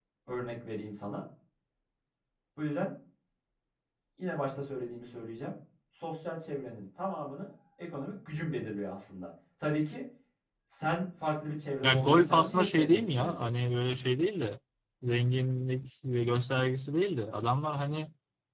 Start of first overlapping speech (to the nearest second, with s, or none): 12 s